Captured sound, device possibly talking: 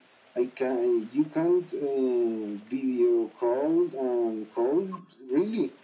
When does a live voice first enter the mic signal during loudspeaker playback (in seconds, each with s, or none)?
none